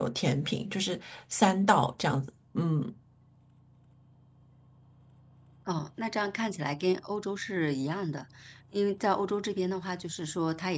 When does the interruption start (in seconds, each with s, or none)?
none